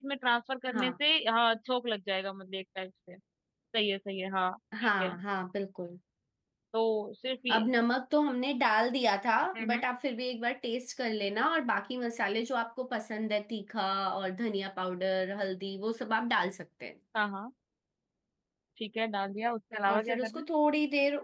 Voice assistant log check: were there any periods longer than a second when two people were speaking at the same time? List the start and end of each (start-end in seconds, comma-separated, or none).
none